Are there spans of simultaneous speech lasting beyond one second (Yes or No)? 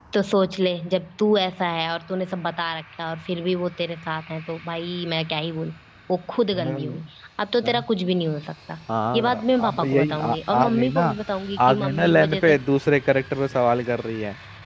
Yes